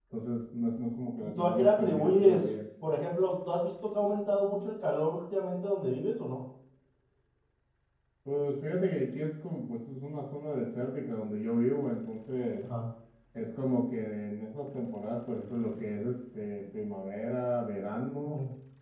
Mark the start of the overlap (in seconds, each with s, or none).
1.2 s